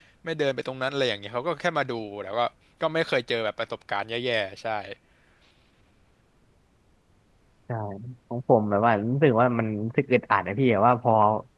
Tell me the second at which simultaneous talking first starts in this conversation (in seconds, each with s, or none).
none